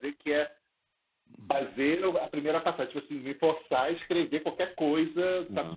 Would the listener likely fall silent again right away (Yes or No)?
Yes